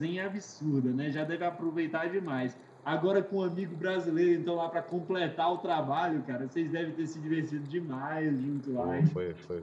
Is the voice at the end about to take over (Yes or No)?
Yes